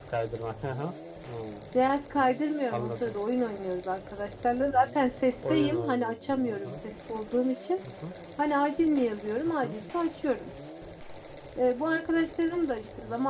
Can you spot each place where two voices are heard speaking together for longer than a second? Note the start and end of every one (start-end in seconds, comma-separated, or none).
5.5-6.8